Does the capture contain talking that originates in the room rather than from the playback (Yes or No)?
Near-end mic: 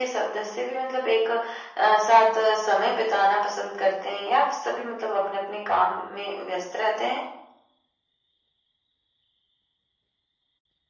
No